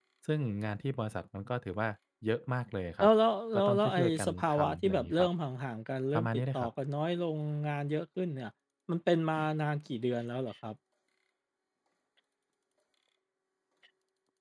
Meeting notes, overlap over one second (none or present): present